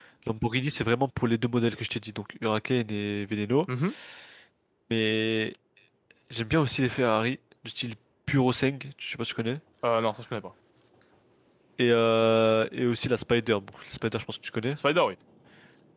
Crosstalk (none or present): none